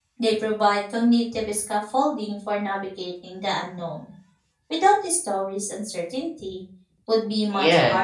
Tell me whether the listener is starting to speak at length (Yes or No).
Yes